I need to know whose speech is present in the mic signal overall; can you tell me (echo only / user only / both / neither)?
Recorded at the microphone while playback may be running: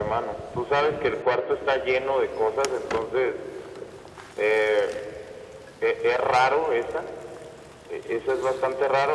echo only